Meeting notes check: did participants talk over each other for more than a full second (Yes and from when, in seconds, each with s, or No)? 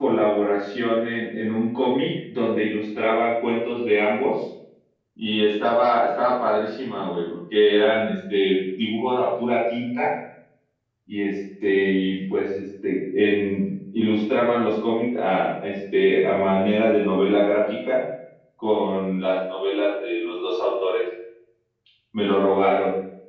No